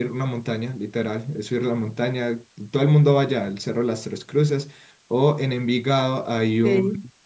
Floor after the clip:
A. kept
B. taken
A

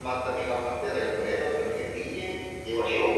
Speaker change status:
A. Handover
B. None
A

